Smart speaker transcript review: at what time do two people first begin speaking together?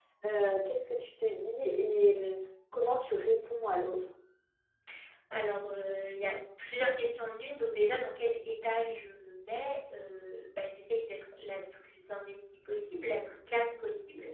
none

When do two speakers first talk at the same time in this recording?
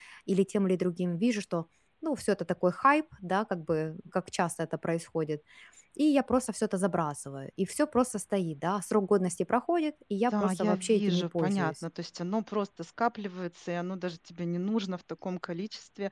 10.3 s

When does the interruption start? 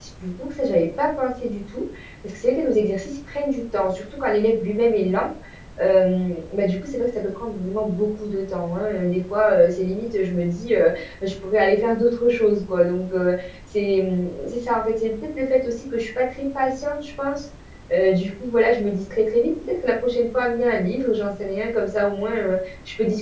none

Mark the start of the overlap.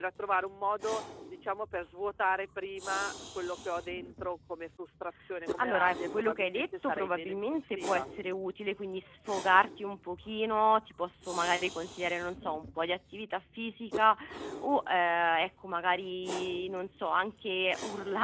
5.6 s

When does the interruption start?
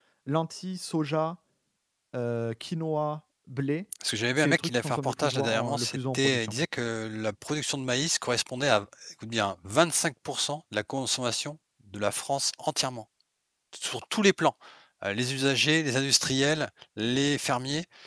4.4 s

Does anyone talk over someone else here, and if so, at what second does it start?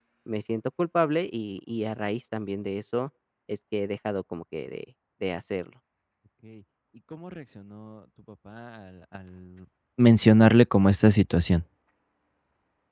none

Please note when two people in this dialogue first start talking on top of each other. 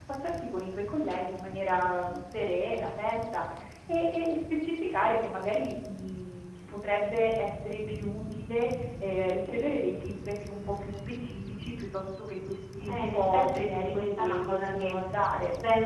12.8 s

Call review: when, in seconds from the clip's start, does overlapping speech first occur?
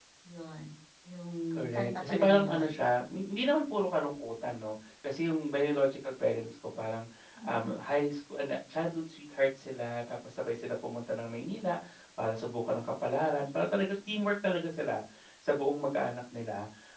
1.5 s

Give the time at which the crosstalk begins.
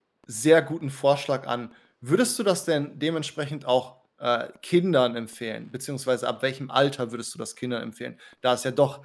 none

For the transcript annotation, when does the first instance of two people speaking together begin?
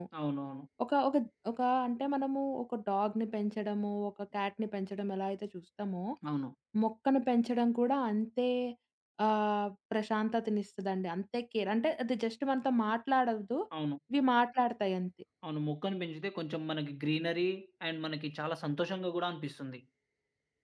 none

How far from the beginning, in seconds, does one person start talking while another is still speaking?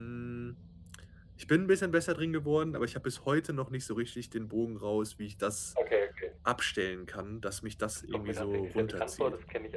8.1 s

